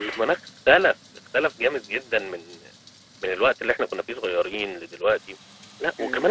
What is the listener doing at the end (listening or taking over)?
taking over